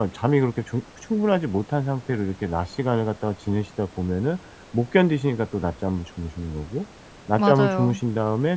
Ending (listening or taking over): listening